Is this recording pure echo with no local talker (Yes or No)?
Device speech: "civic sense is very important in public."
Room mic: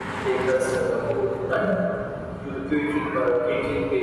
No